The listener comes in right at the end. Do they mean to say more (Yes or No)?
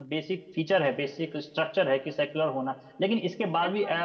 No